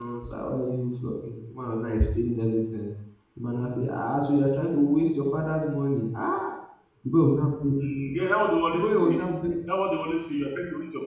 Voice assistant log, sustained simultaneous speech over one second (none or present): none